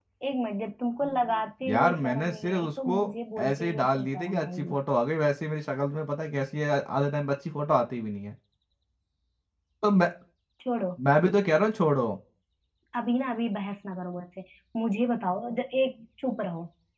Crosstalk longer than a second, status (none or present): present